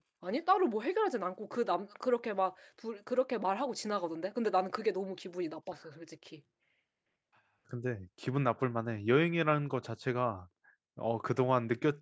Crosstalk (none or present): none